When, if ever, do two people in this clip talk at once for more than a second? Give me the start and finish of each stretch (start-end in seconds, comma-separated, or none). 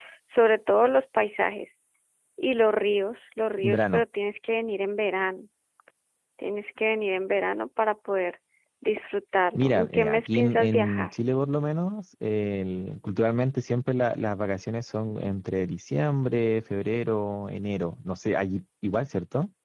9.5-11.1